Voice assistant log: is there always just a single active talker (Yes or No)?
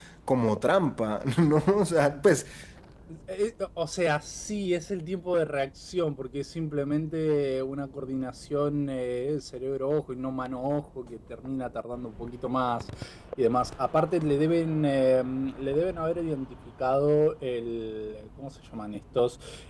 Yes